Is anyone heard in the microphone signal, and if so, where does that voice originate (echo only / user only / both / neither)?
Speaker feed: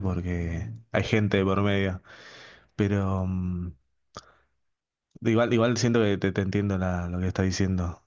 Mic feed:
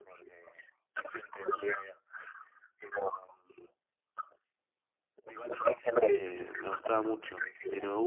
both